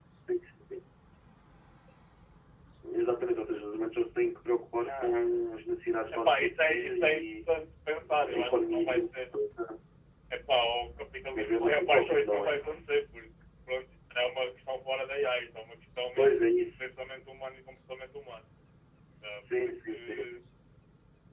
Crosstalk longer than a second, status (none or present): present